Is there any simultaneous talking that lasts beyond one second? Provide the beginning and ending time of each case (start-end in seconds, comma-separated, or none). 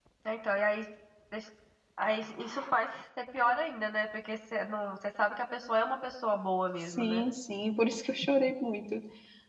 none